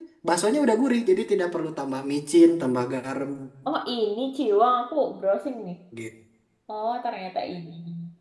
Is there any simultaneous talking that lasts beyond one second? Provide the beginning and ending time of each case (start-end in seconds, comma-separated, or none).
none